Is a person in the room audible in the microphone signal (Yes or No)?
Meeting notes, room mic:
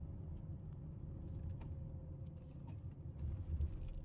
No